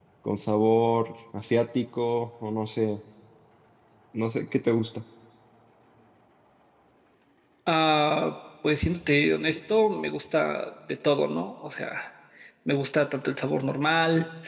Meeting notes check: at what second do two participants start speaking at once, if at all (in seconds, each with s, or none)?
none